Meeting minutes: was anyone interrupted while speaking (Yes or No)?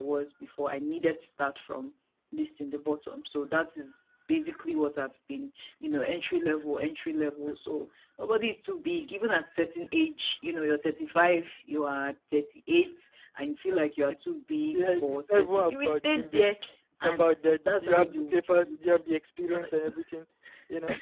Yes